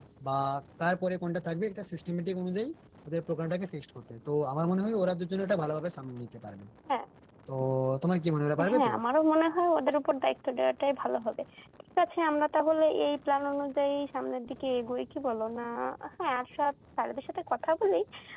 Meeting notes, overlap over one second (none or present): none